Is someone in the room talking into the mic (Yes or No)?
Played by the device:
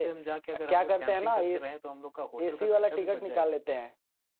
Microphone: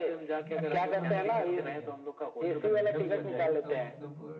Yes